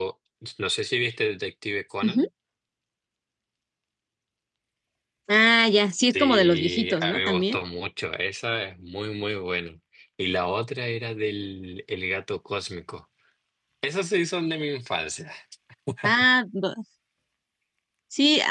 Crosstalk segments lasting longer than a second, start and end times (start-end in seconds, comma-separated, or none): 6.1-7.6